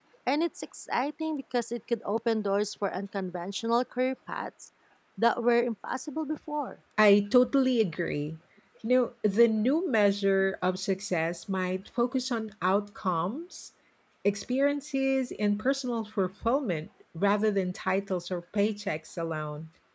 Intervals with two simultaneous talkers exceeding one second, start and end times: none

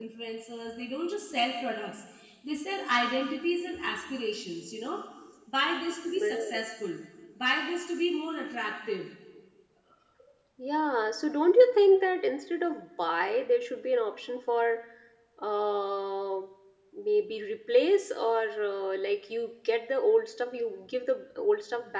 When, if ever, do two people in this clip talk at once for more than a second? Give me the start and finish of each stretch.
none

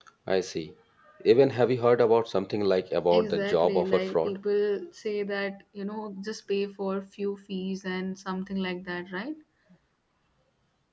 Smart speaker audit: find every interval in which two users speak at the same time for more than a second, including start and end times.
3.1-4.4

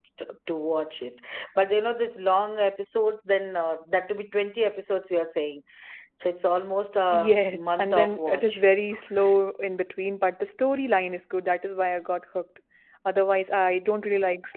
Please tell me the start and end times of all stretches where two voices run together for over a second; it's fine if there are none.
7.1-8.5

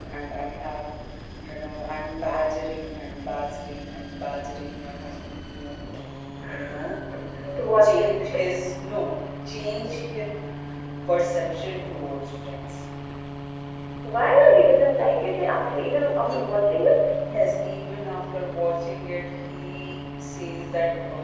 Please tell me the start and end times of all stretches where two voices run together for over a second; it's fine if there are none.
none

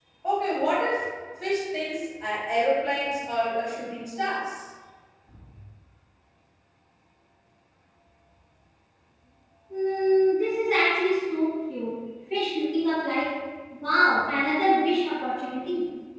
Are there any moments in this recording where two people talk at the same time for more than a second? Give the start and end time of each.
none

